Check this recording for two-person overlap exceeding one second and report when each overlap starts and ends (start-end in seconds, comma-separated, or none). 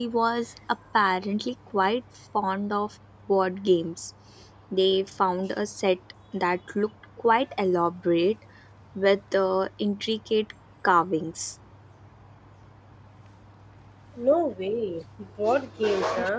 none